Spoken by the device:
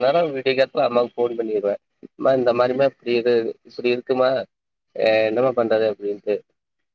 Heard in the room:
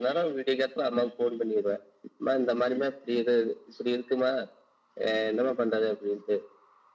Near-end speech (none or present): none